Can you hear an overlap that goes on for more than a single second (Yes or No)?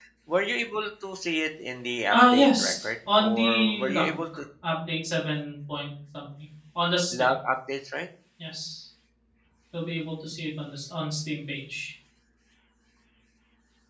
Yes